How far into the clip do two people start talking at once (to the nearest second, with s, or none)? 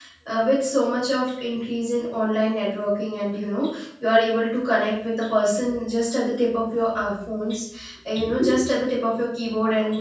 none